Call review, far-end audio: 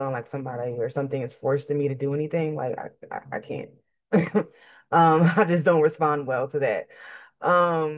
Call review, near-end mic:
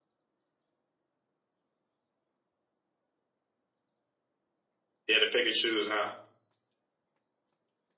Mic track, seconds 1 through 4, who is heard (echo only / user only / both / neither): neither